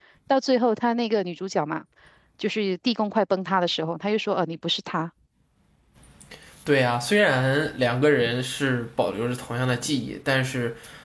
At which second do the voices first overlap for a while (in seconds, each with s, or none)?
none